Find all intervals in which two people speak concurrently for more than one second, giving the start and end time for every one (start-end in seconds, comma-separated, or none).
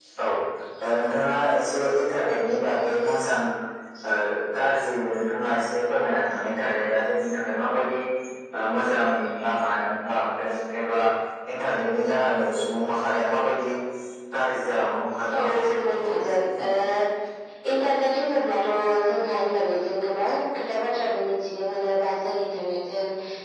15.4-16.7